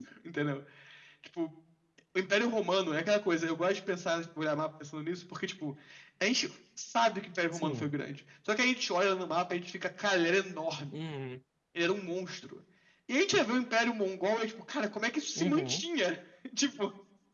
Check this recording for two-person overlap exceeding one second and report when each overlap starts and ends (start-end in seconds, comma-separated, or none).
none